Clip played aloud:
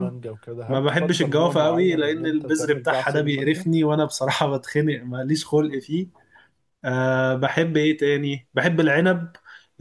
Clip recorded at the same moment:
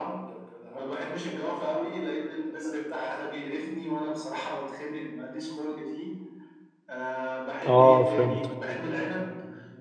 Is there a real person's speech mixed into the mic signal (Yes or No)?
Yes